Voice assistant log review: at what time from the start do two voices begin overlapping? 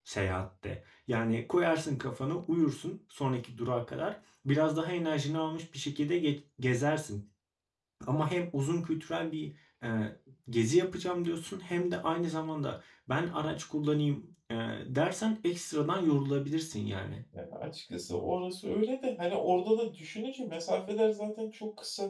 none

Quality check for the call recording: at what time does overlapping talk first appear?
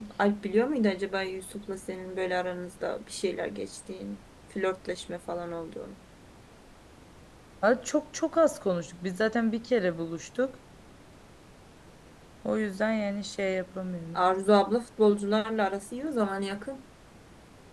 none

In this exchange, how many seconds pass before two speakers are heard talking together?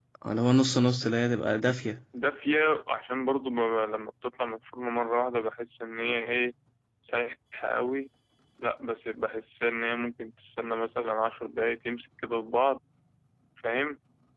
none

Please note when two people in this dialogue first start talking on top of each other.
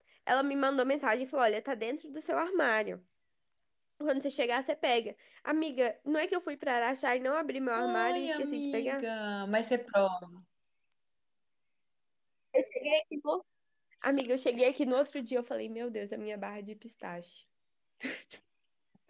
7.8 s

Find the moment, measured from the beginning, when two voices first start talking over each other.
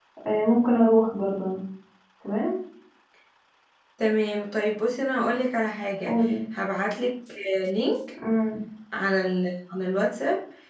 none

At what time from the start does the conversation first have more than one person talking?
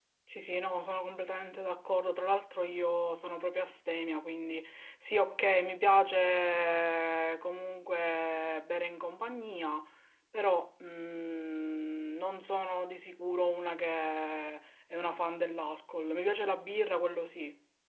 none

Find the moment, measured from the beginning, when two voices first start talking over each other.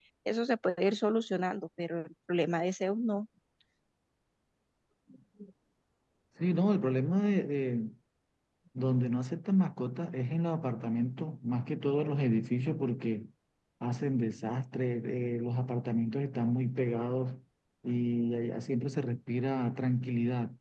none

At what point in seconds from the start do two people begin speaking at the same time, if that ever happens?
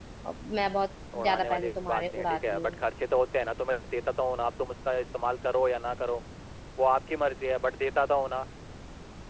1.2 s

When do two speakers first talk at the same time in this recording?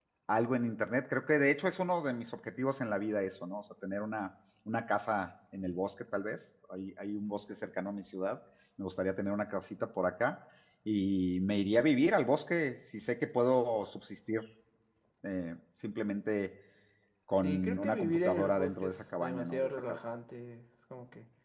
17.4 s

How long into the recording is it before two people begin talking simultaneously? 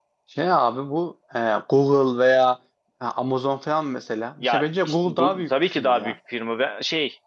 4.4 s

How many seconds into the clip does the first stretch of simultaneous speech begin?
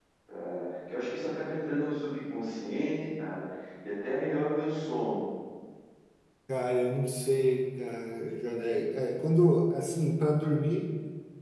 none

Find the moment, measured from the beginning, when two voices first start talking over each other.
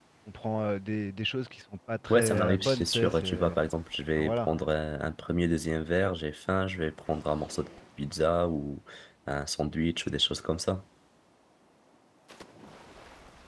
2.1 s

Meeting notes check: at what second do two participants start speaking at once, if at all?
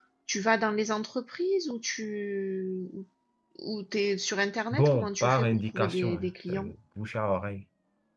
4.7 s

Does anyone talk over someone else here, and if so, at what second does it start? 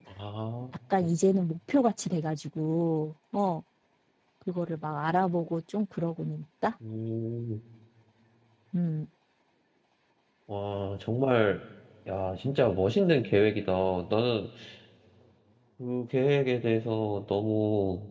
none

